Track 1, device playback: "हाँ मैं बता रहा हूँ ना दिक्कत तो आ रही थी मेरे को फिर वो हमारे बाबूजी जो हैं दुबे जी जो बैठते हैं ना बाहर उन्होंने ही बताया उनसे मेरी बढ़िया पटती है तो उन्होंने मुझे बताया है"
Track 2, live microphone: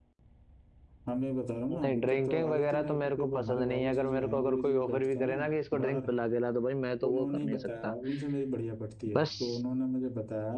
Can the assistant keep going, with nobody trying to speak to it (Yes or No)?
No